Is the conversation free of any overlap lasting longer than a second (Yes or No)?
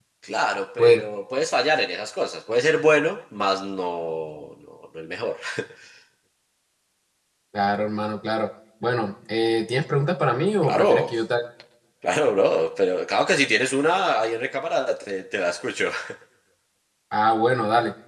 Yes